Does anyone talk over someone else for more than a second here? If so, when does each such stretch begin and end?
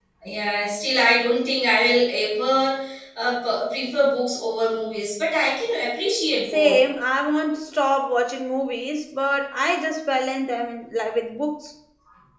none

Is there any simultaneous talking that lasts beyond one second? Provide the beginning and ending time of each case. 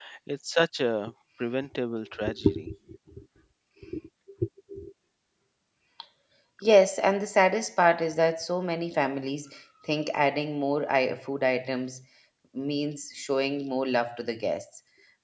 none

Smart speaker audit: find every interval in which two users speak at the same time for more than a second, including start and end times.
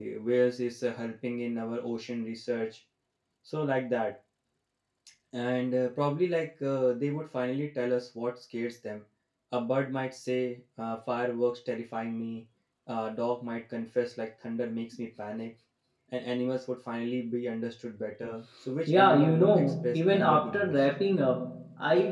18.9-20.8

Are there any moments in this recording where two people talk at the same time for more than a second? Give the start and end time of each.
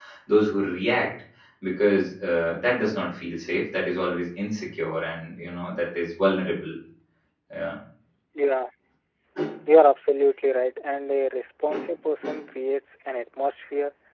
none

